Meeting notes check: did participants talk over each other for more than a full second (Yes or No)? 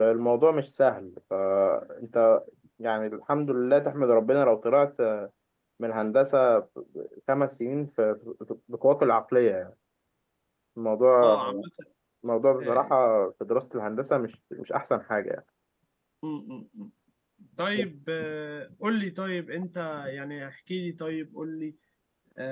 No